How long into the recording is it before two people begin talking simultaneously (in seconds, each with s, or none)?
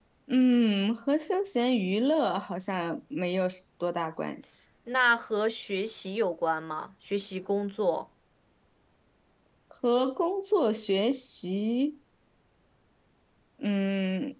none